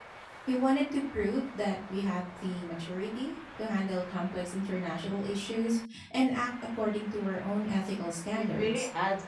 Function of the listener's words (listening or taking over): taking over